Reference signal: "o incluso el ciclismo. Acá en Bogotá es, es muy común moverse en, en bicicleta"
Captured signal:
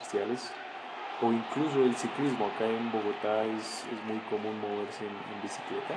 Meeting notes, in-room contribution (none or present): none